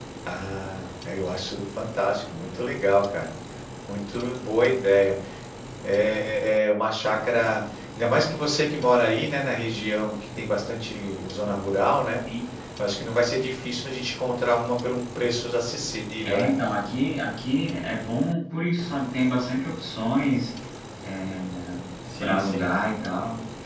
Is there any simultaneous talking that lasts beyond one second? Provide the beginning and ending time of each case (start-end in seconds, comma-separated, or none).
none